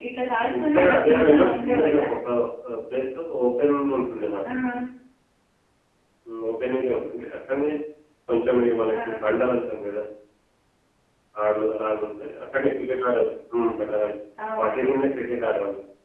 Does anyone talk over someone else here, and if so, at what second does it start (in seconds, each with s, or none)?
0.6 s